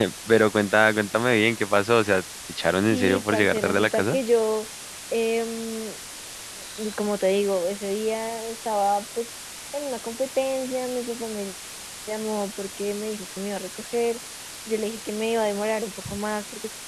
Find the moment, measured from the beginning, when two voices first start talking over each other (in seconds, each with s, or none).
2.9 s